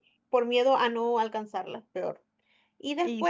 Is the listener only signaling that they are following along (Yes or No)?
Yes